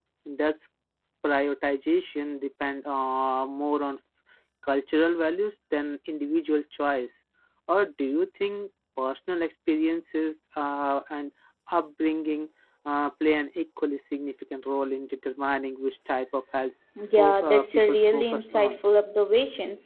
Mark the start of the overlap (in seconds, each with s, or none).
17.0 s